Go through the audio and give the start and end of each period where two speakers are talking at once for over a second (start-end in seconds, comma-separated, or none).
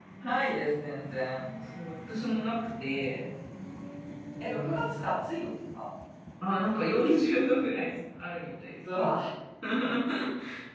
none